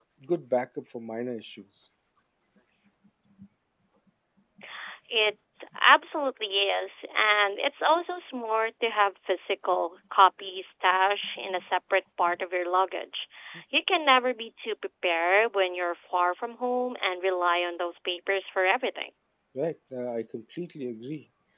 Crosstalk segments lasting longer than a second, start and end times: none

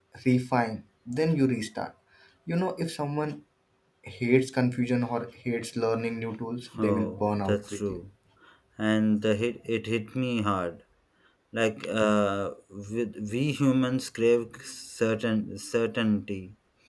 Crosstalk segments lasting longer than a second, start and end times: 6.8-8.0

